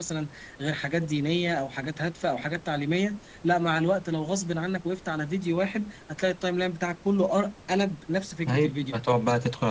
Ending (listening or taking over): taking over